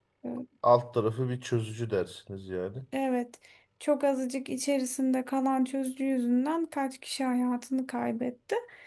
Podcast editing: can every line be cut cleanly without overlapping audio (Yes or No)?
Yes